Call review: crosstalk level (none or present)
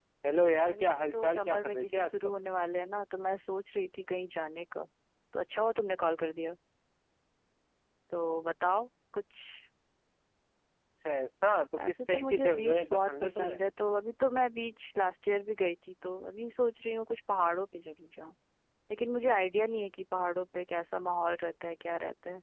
present